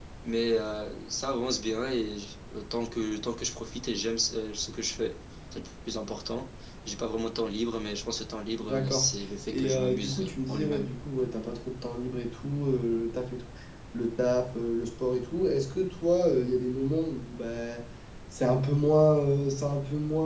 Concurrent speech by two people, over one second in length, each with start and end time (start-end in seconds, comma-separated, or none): 9.5-10.9